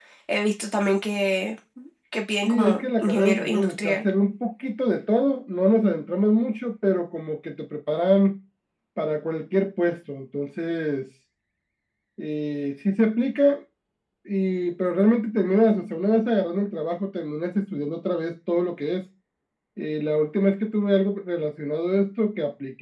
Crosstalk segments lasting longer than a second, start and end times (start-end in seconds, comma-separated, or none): 2.5-4.0